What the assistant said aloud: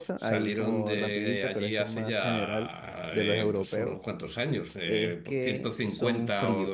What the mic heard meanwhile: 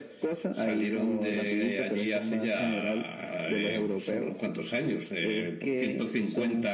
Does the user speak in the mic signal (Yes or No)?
No